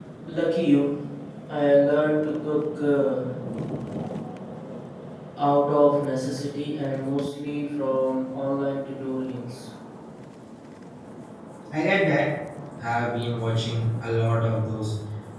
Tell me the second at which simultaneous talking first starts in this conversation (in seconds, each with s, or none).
none